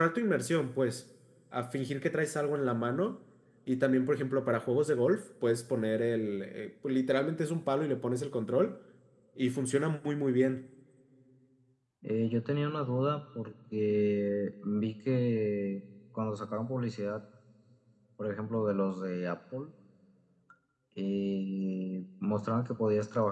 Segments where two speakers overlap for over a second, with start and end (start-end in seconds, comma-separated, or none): none